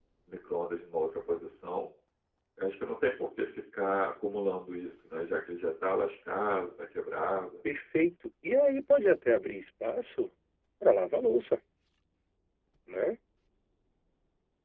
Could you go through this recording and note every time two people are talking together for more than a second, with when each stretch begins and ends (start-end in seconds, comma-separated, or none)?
none